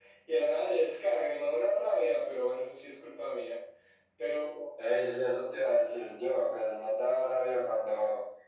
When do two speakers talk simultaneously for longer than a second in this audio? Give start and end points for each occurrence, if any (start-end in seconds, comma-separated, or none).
none